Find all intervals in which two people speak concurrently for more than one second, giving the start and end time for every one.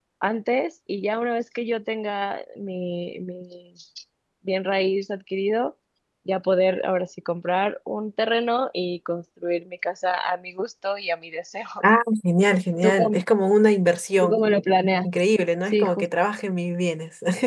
none

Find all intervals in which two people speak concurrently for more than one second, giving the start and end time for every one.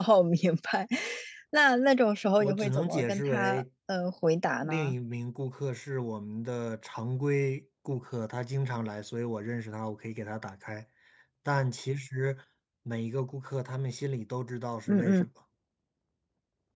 2.4-3.6

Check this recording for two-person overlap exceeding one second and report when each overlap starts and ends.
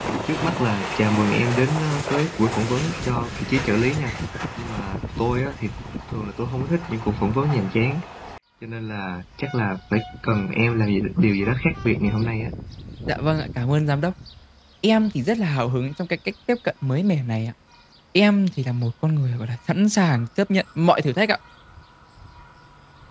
none

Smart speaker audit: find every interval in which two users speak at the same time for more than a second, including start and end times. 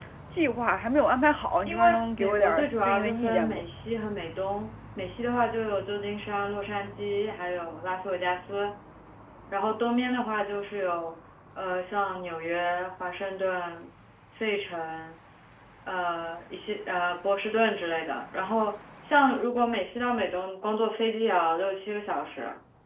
1.7-3.6

